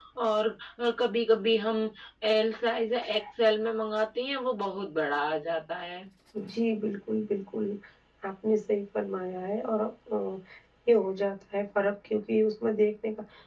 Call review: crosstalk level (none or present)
none